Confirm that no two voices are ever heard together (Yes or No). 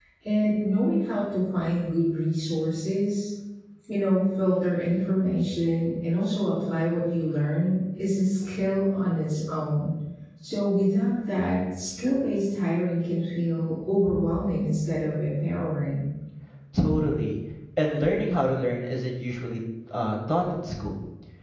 Yes